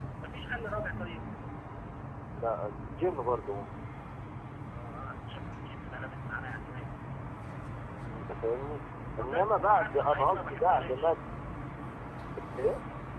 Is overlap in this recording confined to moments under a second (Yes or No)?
No